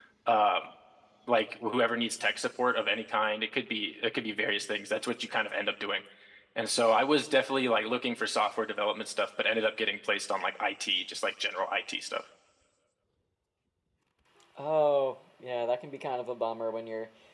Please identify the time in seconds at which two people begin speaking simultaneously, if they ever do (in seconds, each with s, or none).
none